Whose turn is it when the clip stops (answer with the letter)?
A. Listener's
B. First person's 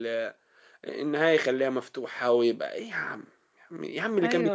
B